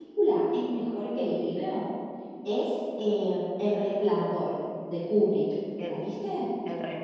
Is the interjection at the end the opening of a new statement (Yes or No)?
Yes